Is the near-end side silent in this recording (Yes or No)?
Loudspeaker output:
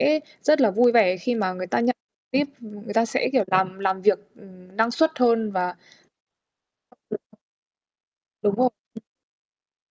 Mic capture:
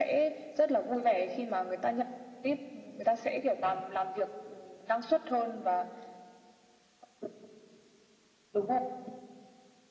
Yes